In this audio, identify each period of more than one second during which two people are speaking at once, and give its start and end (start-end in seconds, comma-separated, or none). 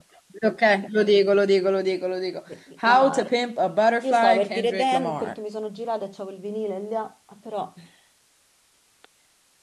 4.0-5.3